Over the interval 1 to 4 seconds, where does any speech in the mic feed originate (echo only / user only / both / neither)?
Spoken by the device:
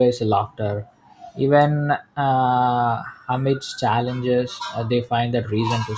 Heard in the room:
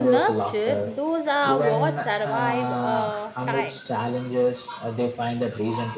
both